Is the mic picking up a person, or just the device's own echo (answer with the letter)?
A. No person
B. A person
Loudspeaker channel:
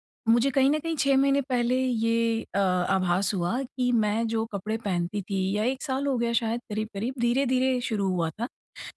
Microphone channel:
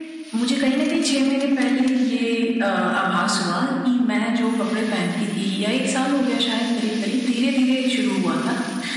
A